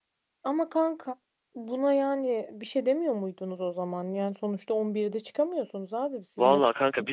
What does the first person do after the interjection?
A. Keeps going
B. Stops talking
B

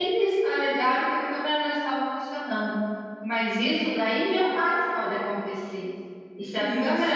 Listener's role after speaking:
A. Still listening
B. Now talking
A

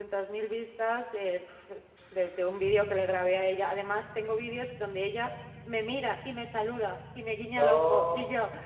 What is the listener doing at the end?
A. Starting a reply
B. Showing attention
B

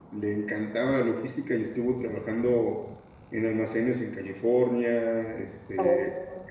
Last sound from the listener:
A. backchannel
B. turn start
A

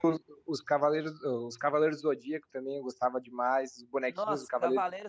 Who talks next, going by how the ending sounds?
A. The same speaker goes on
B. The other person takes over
B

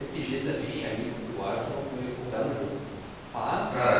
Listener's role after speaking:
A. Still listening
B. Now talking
A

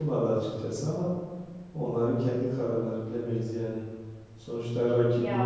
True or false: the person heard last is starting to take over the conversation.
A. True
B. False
B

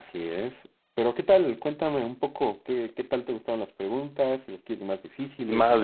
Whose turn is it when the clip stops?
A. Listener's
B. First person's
A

